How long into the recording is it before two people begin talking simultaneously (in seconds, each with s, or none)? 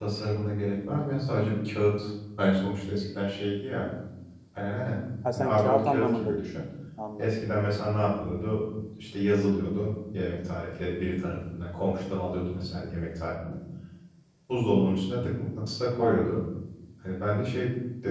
5.3 s